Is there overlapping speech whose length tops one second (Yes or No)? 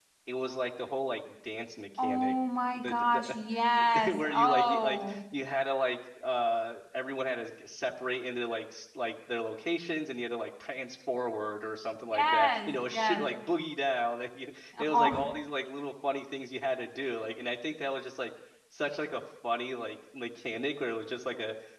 Yes